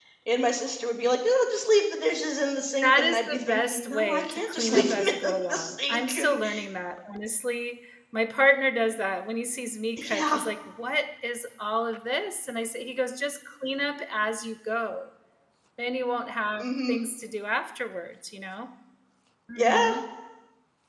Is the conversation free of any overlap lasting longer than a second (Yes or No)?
No